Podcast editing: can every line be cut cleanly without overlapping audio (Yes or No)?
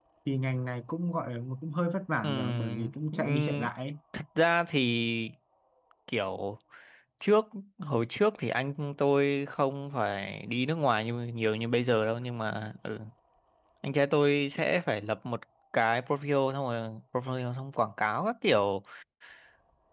No